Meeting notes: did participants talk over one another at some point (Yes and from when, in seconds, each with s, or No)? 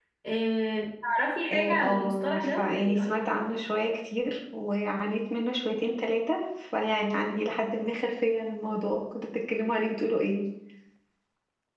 Yes, from 1.5 s